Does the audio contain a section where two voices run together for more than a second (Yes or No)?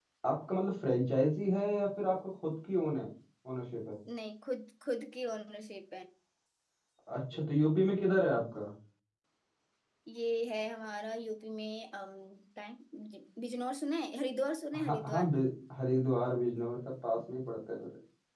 No